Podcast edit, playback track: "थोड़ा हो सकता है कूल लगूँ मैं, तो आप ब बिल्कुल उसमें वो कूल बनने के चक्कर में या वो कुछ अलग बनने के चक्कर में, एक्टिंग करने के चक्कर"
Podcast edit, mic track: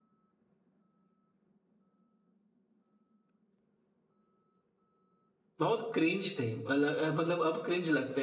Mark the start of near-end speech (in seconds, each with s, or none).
5.6 s